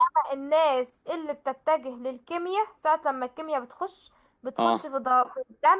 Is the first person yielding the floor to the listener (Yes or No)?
No